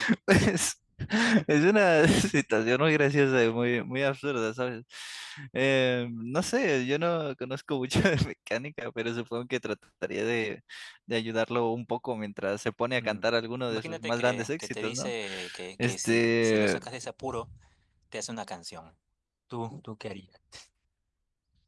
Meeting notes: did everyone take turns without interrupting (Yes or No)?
No